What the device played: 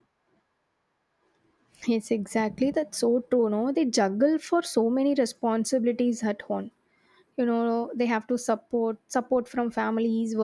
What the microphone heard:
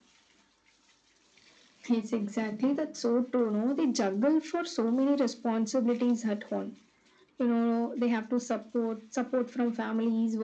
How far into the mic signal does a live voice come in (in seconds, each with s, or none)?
none